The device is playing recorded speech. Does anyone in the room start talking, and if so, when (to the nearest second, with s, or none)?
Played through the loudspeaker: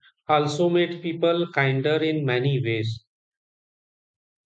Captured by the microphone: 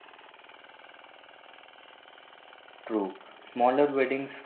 3 s